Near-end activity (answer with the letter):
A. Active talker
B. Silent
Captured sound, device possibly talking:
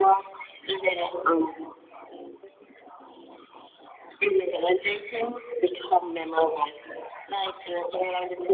B